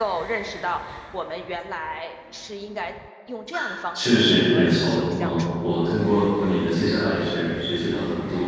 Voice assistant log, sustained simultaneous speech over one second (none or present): present